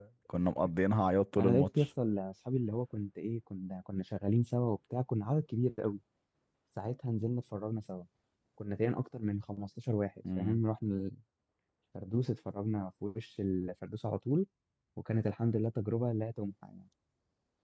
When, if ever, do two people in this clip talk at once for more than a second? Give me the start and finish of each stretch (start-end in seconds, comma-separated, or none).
none